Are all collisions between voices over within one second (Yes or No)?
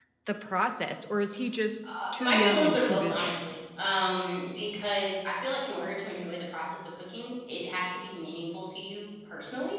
No